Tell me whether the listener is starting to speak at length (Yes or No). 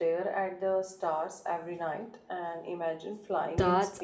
Yes